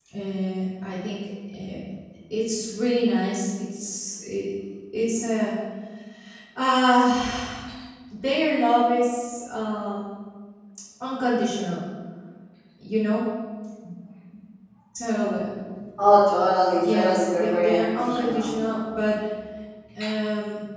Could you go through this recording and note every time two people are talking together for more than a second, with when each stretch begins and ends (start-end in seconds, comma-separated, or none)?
16.9-18.5